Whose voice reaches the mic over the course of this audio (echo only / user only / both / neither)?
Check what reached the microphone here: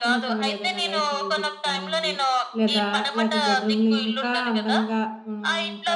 both